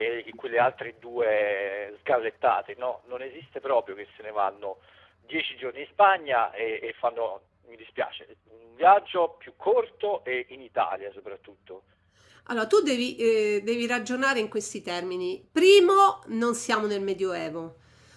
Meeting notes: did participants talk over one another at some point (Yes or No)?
No